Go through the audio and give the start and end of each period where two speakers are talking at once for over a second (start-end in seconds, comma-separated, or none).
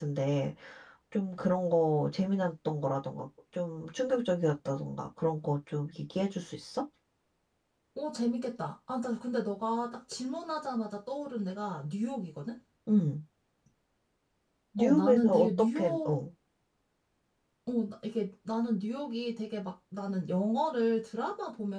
14.8-16.2